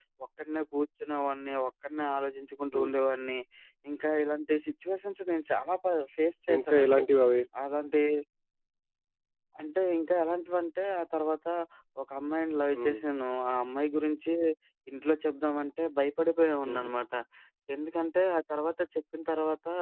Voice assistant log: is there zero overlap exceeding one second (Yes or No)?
Yes